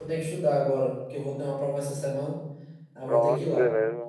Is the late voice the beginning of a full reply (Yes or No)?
Yes